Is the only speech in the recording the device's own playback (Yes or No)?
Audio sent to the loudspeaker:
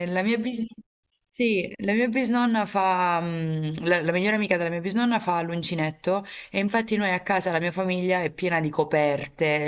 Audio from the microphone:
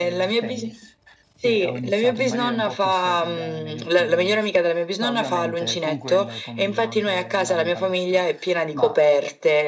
No